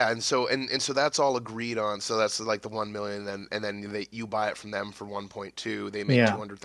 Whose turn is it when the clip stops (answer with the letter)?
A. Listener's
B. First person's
B